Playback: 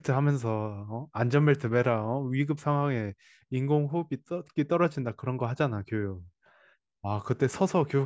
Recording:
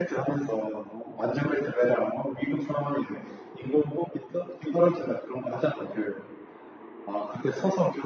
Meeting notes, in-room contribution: none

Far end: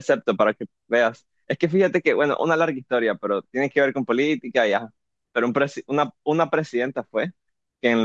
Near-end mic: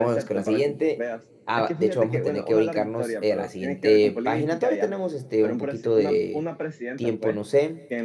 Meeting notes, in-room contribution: present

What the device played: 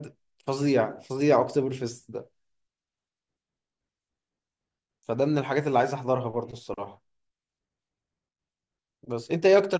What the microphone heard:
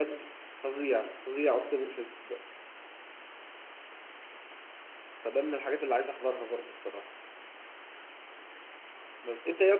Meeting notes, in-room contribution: none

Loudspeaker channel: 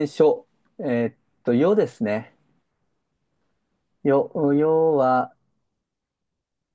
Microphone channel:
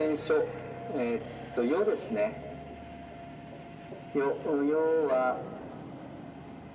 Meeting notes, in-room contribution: none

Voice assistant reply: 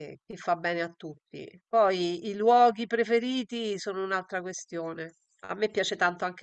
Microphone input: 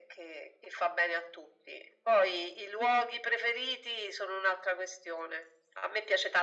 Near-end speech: none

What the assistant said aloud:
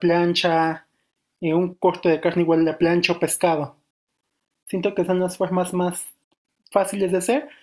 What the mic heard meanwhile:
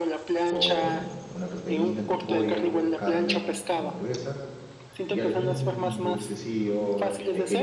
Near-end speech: present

